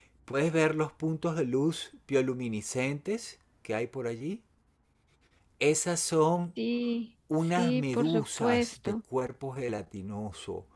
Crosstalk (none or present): present